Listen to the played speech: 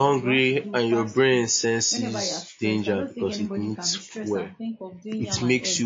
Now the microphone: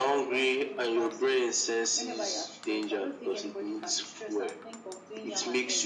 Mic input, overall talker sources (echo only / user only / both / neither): echo only